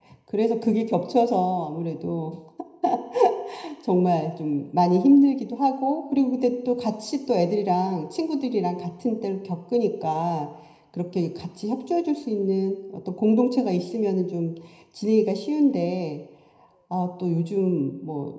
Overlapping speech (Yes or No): No